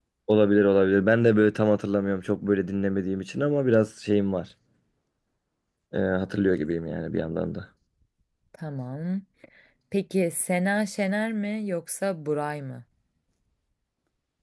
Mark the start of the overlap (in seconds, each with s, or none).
none